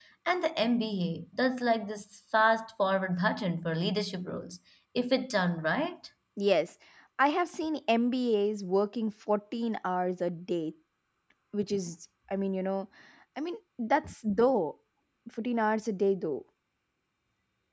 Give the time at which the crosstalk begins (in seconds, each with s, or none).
none